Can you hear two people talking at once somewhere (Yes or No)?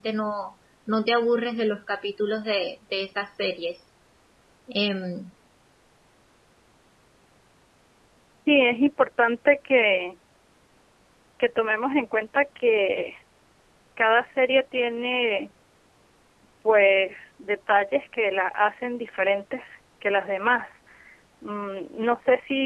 No